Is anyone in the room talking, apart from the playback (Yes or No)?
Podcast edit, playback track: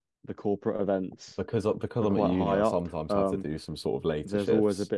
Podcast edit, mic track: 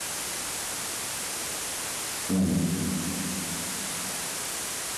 Yes